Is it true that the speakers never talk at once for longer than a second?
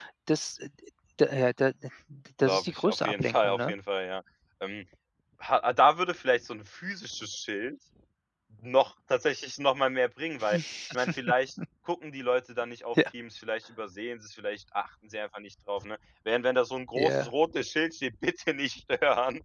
No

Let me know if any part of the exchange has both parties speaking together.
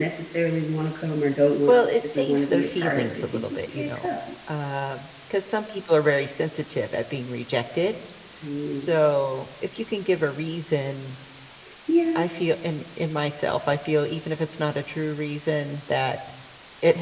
Yes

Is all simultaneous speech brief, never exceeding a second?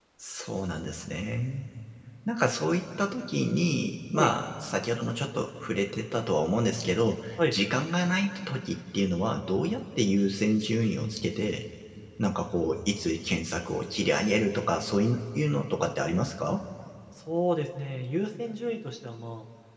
Yes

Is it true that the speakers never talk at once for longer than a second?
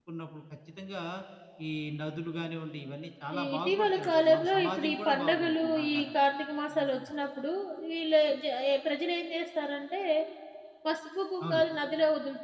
No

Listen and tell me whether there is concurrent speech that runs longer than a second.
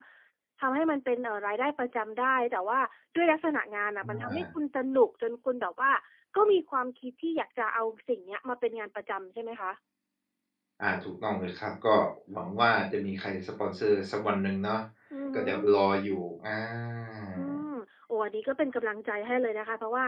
No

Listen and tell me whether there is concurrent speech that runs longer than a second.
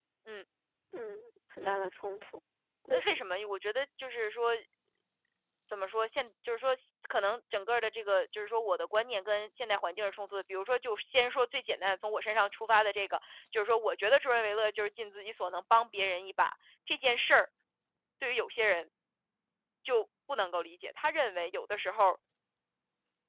No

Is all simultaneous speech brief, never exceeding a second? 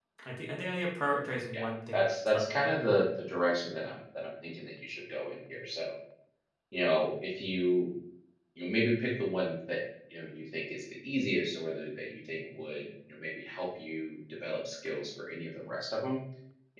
No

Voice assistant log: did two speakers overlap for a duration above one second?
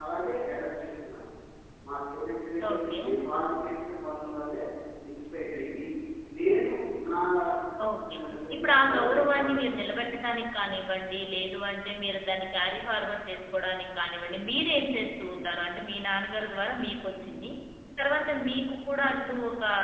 Yes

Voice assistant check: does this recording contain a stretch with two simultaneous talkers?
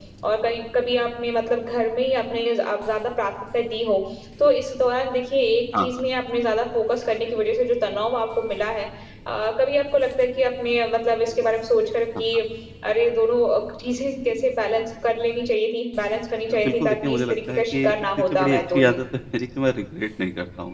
Yes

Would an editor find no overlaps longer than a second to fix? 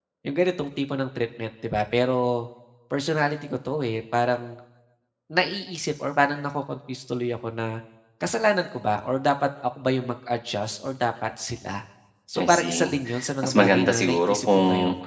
No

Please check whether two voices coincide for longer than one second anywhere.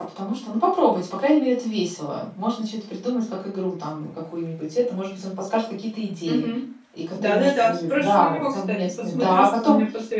Yes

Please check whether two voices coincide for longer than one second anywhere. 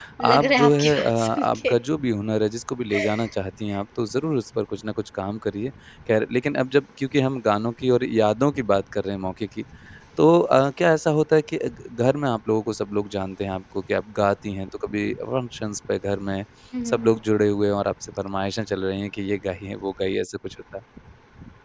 Yes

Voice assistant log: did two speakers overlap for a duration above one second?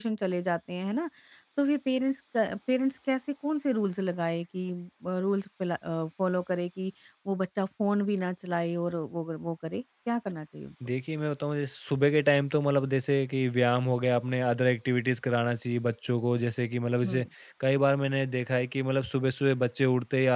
No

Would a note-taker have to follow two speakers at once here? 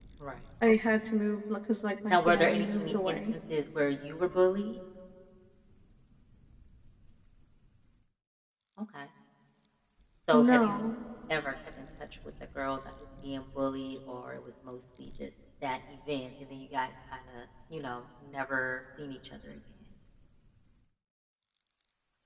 Yes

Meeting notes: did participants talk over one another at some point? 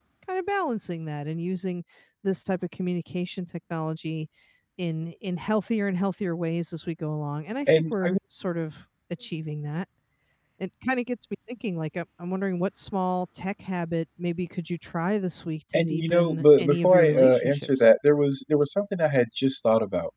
Yes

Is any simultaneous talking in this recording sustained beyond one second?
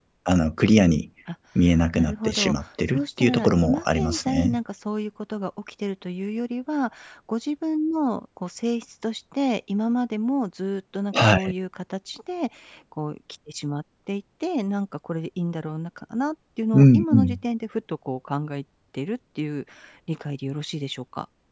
Yes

